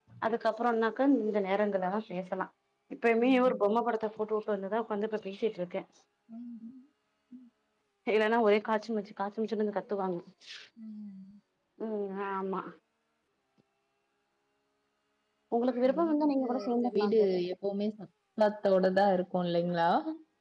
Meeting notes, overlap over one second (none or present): present